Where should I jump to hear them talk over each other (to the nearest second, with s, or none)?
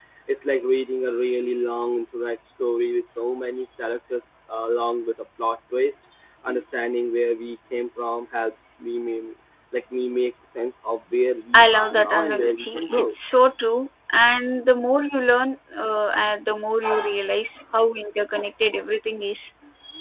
12 s